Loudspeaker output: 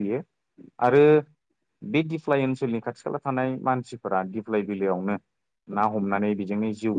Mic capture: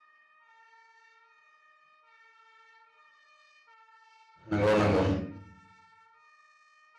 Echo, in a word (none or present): none